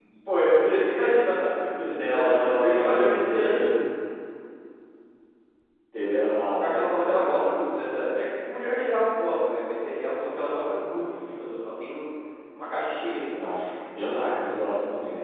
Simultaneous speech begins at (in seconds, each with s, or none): 1.9 s